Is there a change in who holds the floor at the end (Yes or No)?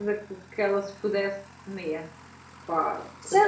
Yes